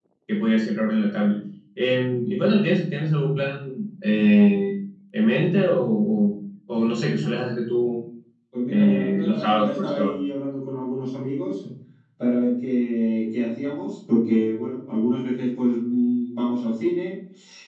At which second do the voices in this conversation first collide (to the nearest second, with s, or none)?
9 s